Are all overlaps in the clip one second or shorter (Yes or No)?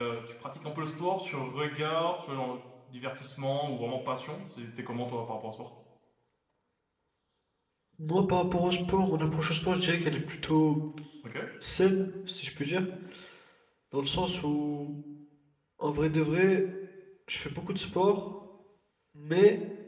Yes